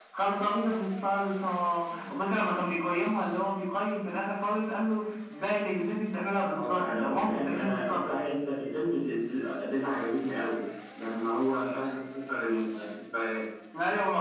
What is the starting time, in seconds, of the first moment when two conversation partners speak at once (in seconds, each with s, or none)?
6.4 s